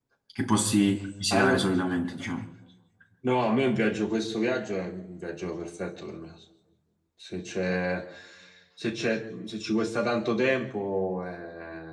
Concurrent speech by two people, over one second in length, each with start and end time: none

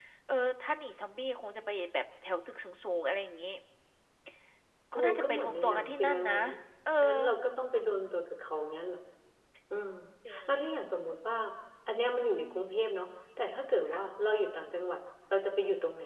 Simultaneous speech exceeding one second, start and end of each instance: 5.0-6.3

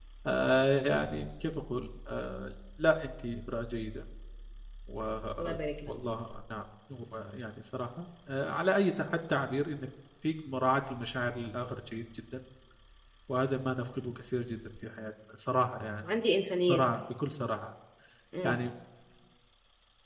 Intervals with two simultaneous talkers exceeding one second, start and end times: none

